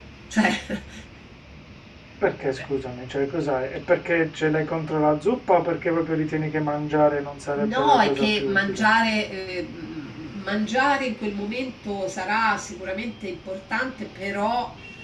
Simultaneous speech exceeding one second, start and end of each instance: 7.6-8.9

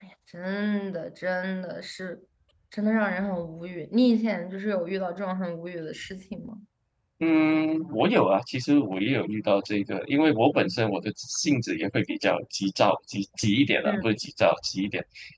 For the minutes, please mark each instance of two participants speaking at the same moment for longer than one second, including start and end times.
none

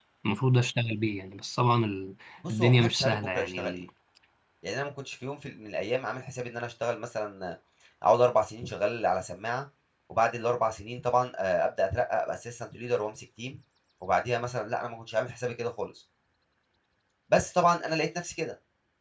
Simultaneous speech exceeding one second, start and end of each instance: 2.6-3.8

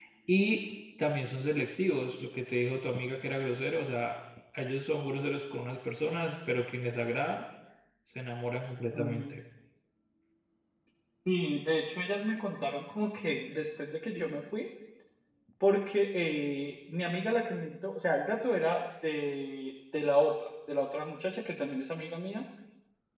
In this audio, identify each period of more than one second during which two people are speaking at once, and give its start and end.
none

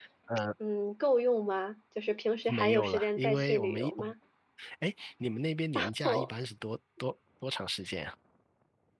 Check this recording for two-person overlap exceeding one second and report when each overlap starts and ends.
2.5-3.9

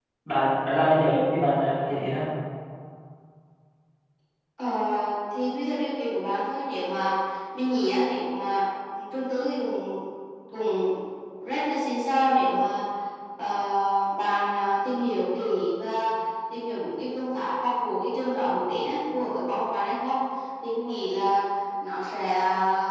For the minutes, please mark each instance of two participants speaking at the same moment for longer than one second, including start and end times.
none

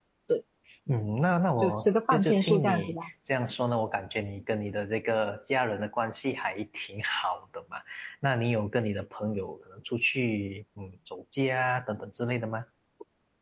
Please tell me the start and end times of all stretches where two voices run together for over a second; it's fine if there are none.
1.6-3.0

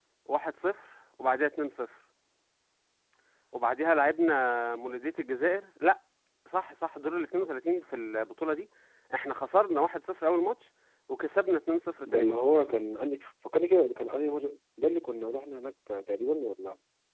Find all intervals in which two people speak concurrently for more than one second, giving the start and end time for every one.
none

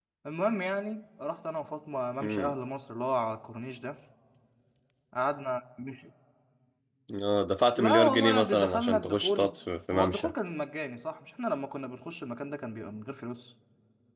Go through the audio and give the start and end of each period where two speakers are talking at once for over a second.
7.8-9.5

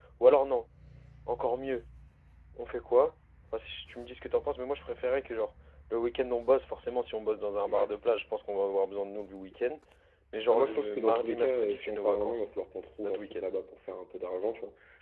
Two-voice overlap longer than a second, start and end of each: 10.5-12.4

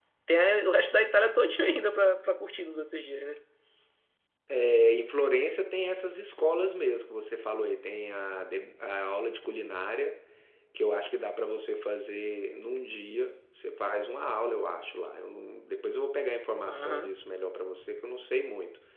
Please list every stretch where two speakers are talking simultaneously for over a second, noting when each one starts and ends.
none

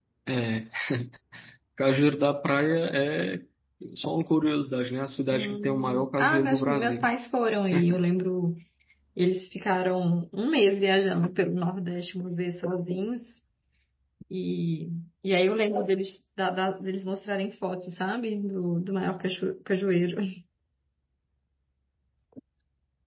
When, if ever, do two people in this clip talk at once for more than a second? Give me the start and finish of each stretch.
5.3-7.1

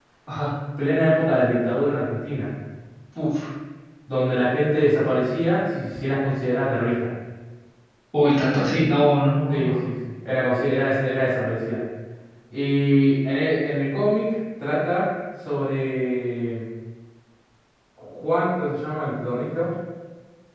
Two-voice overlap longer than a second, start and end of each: none

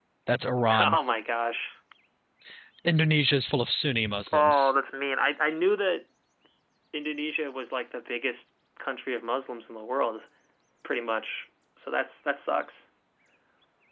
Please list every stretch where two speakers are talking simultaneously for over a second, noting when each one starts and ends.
none

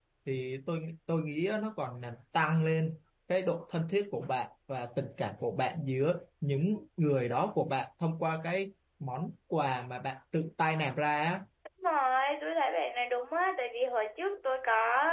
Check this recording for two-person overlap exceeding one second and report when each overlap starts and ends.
none

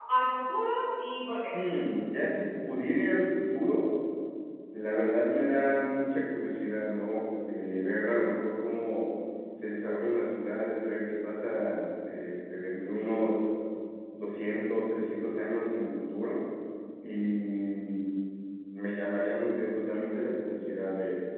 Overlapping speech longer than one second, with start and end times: none

